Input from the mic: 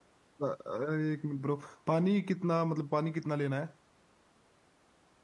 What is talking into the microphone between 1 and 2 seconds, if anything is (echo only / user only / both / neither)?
user only